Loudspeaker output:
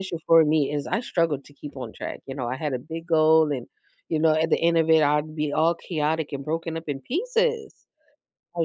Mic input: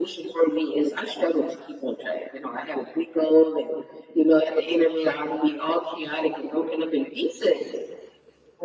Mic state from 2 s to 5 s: echo only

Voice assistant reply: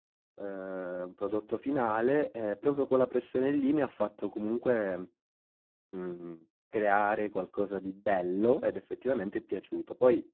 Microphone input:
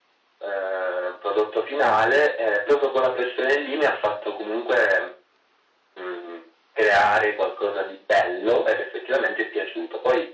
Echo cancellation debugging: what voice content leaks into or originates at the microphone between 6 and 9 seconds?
echo only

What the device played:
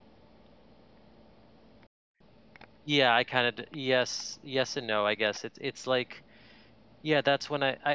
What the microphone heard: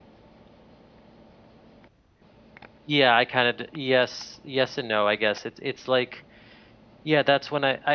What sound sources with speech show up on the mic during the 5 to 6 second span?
echo only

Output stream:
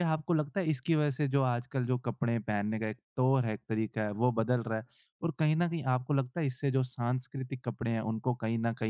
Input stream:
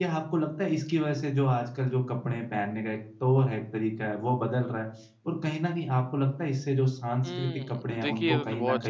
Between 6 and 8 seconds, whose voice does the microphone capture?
both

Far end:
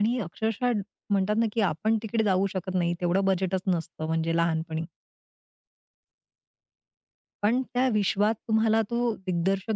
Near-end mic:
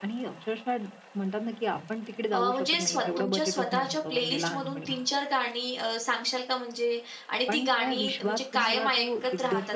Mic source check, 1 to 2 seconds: echo only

